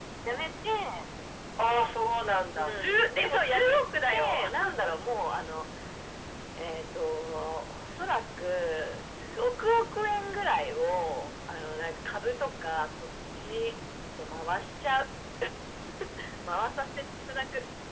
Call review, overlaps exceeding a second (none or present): present